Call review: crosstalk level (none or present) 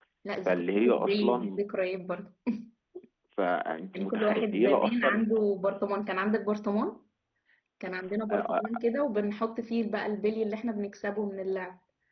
present